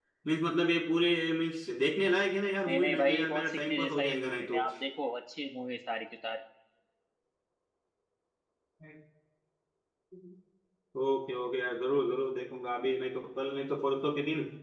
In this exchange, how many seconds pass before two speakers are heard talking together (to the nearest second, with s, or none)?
3 s